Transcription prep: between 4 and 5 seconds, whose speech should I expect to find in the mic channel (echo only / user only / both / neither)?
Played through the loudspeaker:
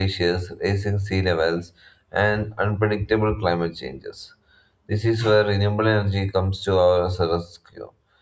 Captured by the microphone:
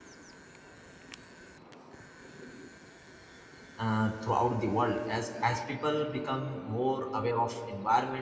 user only